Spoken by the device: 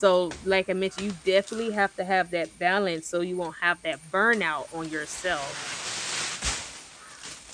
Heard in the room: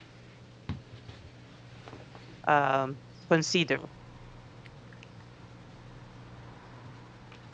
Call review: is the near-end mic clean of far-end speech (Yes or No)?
Yes